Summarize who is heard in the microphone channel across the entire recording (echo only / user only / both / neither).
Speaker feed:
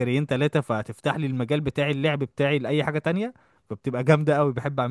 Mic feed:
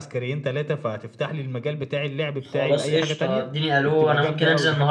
both